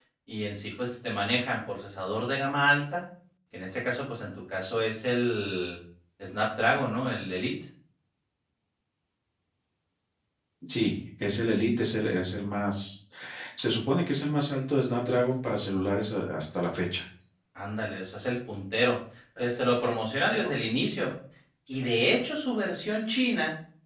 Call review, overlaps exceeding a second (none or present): none